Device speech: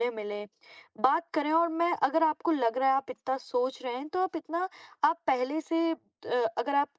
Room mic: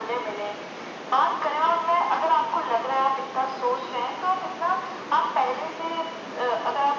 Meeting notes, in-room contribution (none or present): none